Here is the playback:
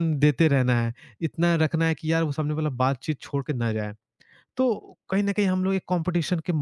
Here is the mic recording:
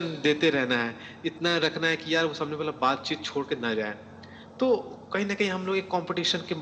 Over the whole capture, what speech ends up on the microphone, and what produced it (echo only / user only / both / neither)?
echo only